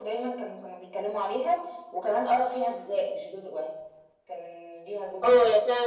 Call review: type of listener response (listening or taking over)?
taking over